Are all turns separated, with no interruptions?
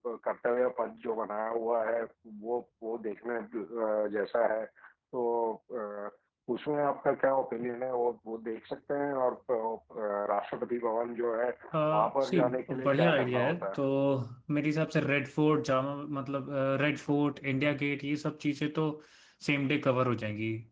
No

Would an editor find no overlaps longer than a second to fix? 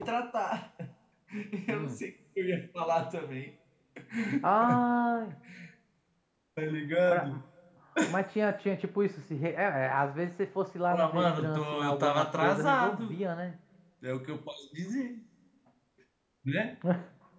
No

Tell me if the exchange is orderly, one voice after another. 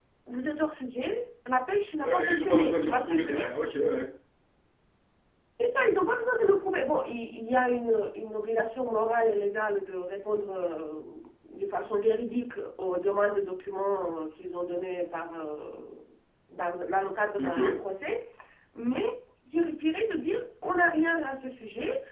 No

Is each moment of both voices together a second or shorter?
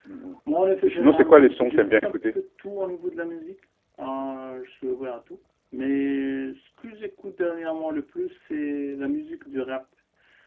No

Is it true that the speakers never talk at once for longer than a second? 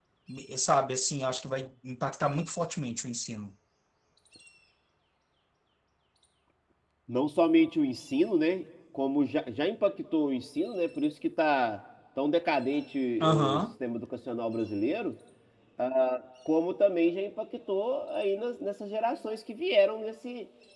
Yes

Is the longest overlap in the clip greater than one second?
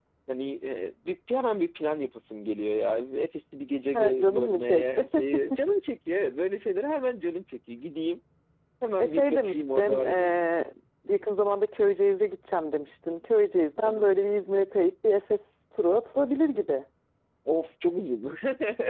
Yes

